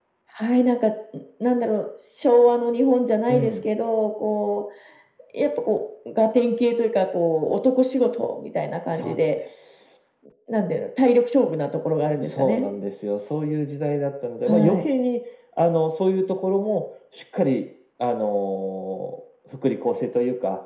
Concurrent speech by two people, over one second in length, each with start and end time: none

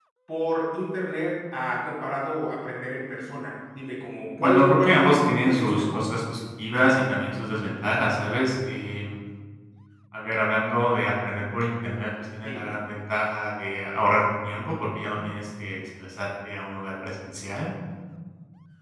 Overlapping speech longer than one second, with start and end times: 4.4-6.0

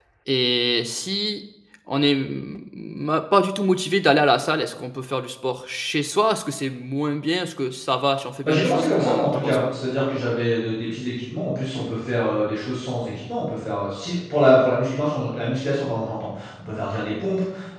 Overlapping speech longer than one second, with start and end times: 8.4-9.7

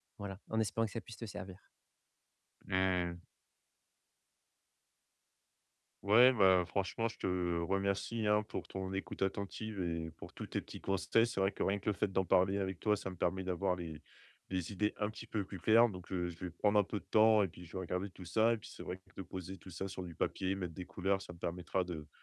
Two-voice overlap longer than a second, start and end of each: none

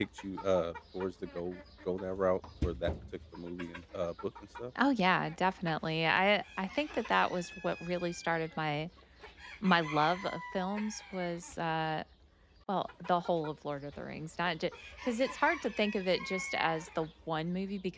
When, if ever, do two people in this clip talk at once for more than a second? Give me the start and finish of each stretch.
none

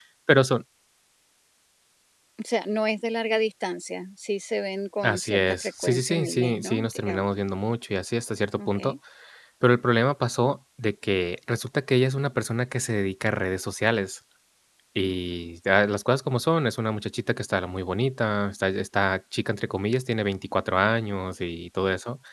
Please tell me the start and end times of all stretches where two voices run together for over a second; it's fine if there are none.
5.0-7.3

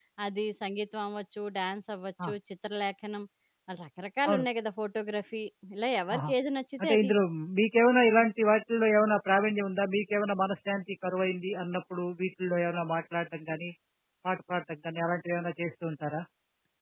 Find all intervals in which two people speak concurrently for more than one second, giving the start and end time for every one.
none

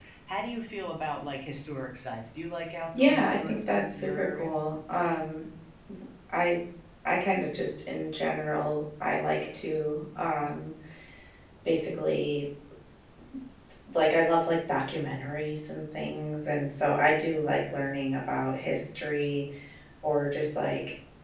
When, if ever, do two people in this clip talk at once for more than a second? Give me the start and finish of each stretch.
2.9-4.5

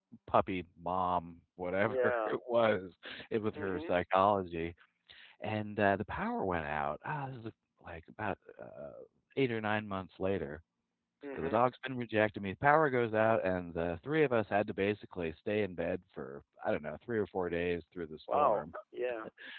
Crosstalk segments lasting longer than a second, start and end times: none

